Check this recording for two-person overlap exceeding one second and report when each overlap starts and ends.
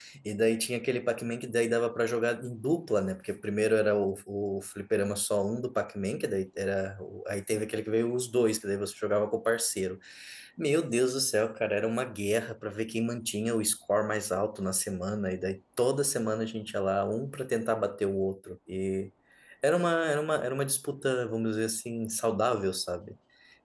none

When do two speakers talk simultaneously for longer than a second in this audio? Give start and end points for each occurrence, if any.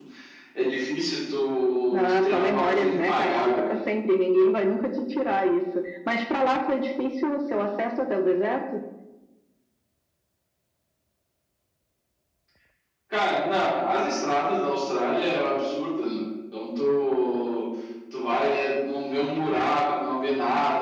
1.9-3.8

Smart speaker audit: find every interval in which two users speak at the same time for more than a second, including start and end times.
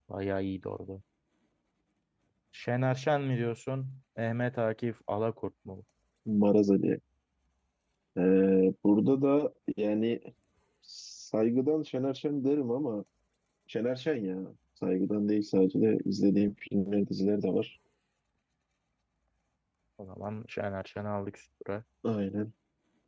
none

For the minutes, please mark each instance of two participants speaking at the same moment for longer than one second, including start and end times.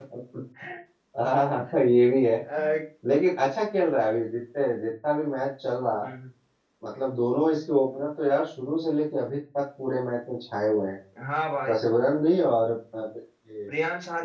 none

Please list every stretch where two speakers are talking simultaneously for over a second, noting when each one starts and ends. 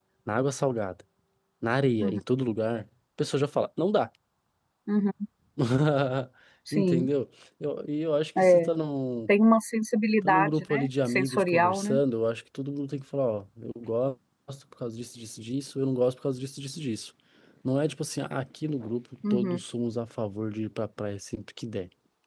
10.2-12.0

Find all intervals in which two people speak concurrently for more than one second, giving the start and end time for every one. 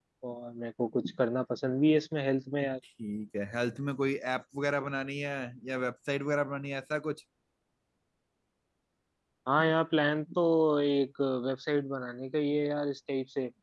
none

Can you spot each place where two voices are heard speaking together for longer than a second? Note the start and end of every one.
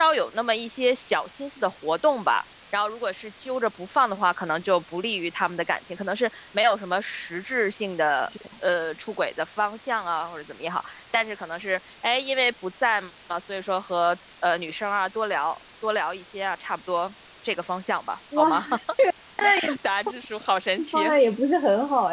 none

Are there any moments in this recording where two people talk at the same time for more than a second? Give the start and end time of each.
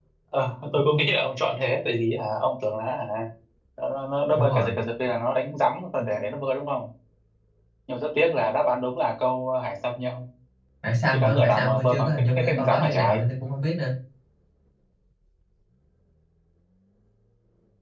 11.1-13.2

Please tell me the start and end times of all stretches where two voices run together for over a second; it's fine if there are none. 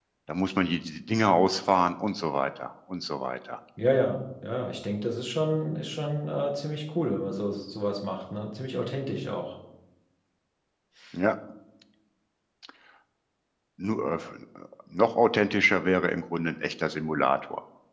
none

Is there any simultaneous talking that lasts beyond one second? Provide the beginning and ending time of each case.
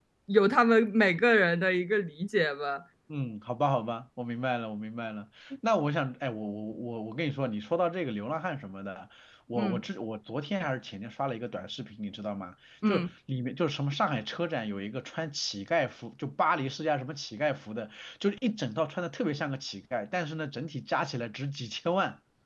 none

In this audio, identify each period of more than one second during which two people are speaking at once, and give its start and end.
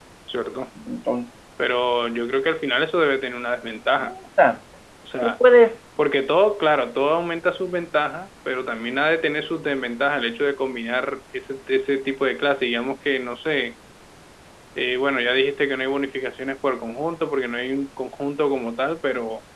none

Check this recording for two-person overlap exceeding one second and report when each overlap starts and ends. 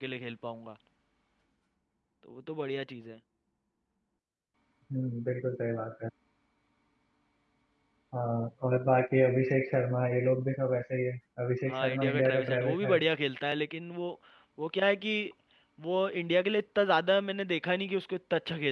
11.7-13.0

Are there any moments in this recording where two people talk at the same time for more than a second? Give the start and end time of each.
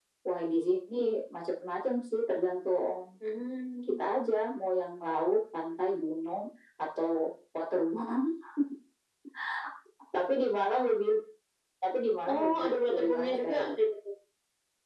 12.2-13.8

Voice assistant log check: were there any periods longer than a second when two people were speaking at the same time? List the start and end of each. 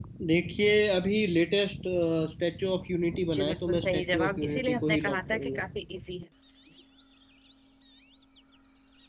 3.3-5.6

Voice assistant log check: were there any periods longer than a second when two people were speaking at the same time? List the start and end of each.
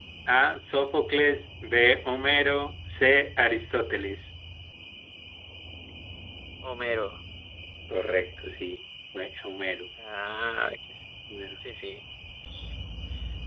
none

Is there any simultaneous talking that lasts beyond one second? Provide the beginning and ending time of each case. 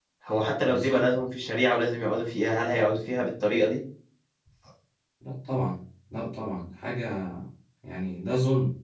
none

